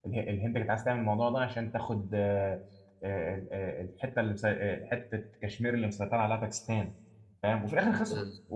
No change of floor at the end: Yes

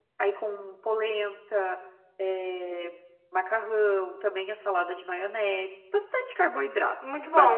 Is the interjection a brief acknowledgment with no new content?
No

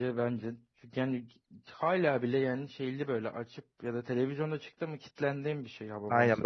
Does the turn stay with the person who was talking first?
No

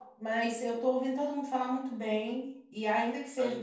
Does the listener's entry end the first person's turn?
No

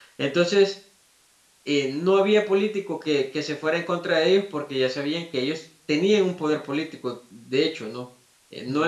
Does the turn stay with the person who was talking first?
Yes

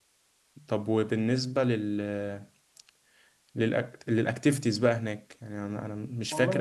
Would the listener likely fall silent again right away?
Yes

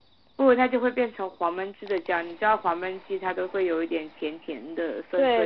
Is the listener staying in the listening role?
No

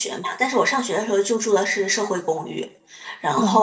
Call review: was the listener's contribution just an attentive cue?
Yes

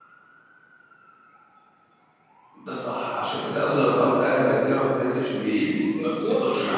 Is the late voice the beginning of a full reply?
Yes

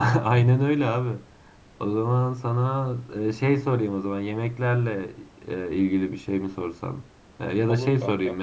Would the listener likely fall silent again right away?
Yes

